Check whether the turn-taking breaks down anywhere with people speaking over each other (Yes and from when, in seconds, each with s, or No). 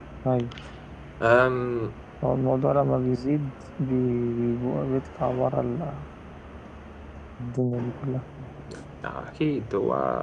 No